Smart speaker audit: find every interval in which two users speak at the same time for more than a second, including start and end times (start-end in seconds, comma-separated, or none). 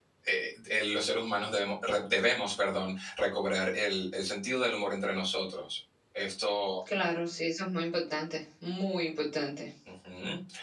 none